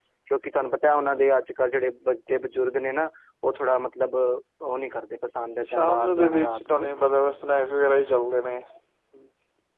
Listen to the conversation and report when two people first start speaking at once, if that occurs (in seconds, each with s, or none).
5.6 s